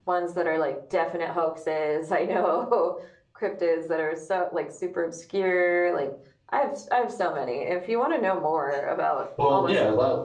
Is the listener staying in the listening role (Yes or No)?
No